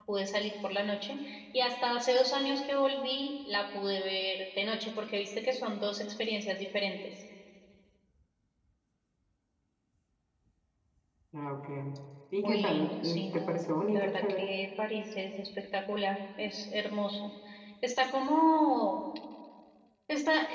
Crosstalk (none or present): present